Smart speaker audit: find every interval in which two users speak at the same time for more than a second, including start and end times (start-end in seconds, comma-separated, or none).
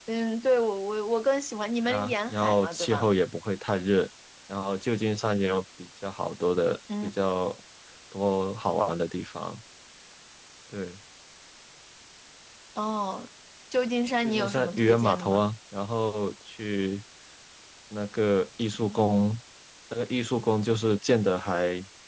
1.8-3.1, 14.2-15.4